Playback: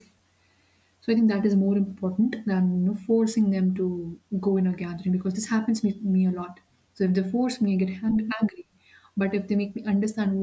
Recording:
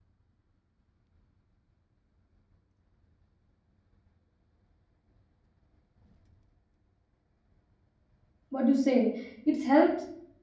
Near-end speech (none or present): present